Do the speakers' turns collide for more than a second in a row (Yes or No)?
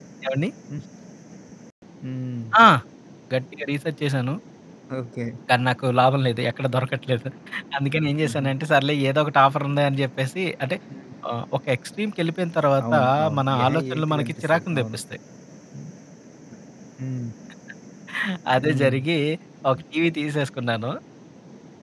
Yes